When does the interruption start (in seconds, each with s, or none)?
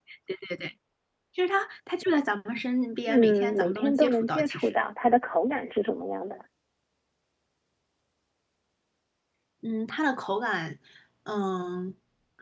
3.1 s